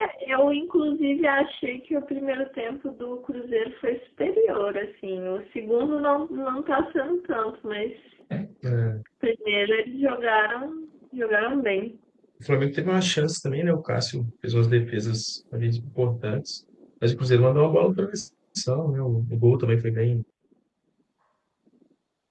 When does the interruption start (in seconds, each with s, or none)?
none